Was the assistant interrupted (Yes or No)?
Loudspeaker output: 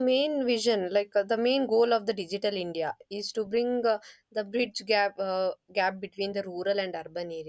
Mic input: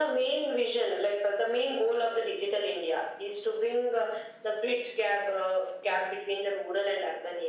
No